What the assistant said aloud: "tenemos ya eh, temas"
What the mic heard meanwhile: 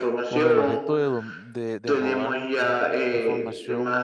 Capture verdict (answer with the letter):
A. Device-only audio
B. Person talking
B